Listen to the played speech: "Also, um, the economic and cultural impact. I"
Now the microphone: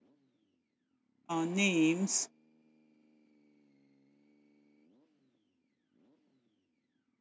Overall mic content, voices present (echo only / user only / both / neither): user only